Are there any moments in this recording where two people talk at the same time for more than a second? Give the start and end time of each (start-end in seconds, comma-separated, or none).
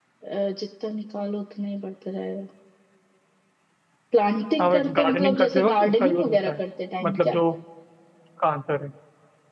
4.6-6.6